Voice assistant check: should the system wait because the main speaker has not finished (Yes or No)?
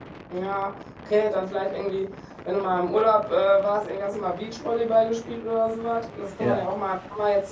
Yes